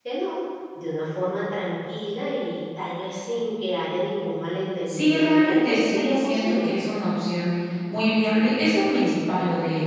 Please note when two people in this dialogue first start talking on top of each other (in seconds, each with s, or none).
4.9 s